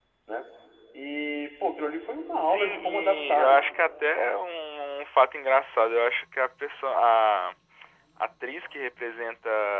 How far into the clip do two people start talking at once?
2.4 s

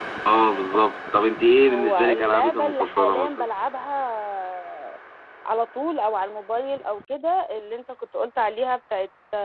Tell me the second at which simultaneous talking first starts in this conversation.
1.7 s

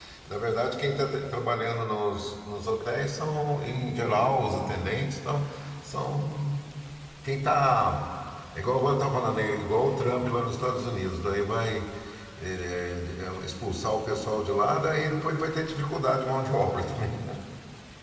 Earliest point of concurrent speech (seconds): none

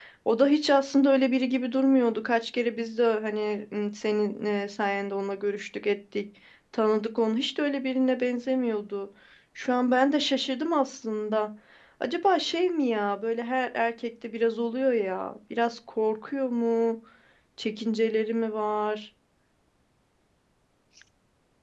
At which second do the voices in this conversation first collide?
none

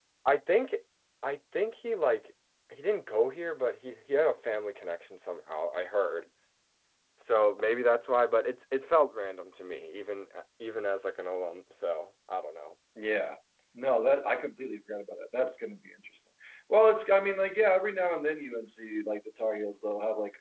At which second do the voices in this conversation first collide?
none

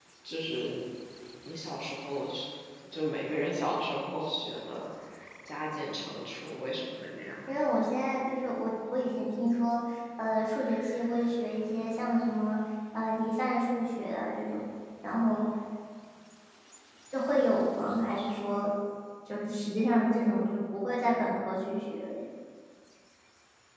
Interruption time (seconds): none

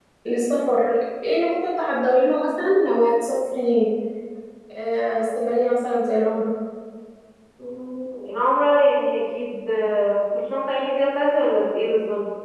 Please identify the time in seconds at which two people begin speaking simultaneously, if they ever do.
none

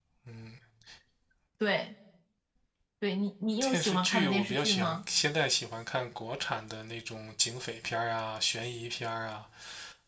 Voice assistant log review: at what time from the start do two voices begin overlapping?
3.6 s

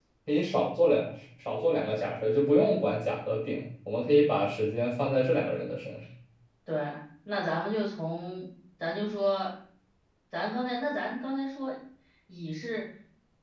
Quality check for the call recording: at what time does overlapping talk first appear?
none

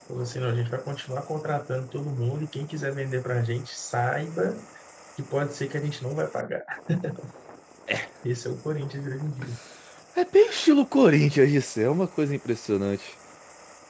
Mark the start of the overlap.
none

